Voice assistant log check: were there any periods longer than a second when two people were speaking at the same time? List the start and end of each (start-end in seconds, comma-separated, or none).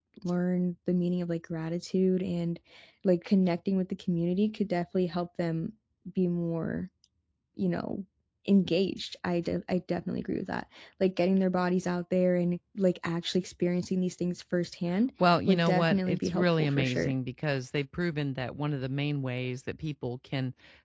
15.5-17.1